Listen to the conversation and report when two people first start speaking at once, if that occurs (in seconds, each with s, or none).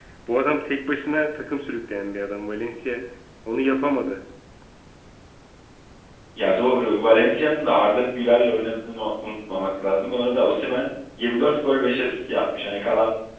none